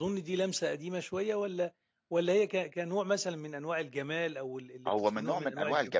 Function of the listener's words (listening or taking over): taking over